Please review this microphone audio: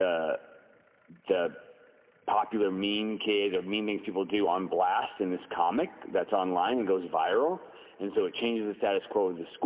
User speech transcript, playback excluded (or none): none